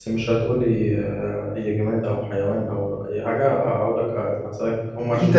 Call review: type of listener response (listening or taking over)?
taking over